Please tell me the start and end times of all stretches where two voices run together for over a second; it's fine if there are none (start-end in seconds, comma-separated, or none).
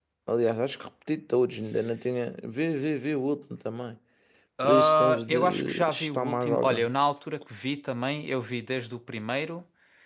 4.6-6.9